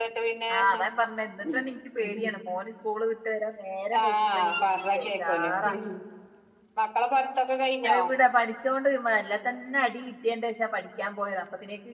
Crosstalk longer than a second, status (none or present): present